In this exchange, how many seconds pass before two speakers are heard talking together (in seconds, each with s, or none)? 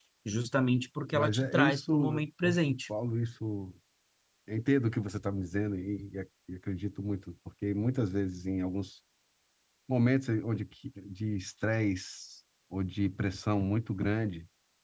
1.1 s